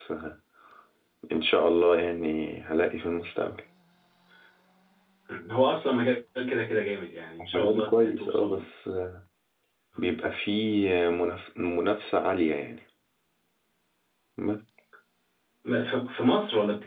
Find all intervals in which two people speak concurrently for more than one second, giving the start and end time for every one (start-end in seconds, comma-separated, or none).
7.4-8.6